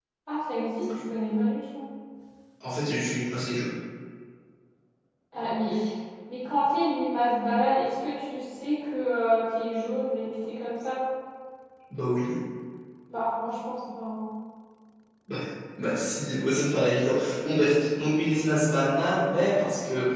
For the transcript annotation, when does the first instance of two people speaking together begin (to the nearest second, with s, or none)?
none